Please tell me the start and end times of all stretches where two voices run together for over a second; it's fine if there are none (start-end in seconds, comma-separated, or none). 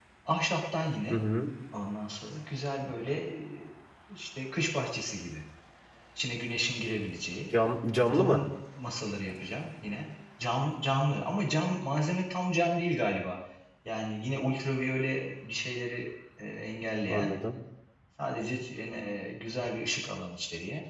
none